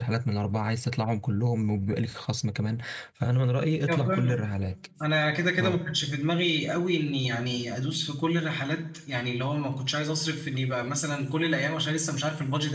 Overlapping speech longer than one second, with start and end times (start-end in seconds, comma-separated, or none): none